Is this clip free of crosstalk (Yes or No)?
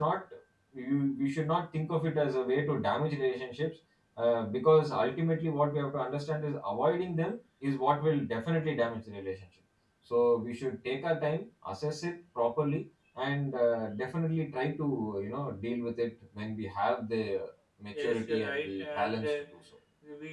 No